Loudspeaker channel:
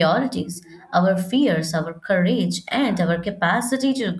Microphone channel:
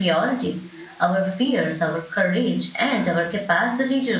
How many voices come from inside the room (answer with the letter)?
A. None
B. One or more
A